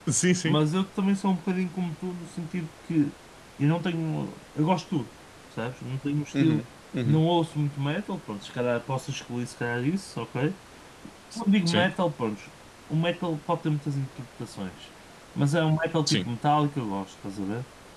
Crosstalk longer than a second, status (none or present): none